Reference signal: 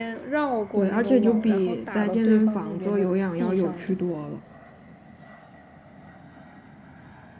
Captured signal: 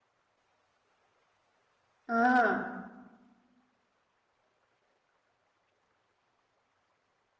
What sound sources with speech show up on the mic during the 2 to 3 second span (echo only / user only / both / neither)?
user only